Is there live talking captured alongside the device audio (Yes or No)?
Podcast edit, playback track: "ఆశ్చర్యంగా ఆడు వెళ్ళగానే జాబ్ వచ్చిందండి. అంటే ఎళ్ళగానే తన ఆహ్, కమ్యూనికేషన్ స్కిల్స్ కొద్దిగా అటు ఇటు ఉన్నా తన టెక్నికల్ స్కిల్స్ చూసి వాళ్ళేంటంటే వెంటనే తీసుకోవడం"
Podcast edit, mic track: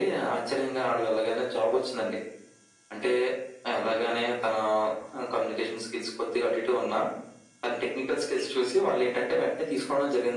No